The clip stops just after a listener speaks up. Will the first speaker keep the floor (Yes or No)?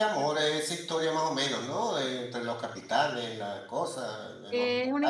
No